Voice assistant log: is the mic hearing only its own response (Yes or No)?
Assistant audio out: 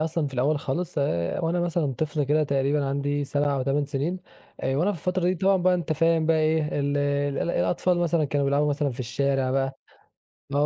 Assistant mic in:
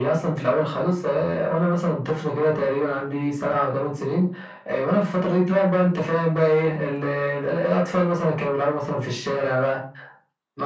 Yes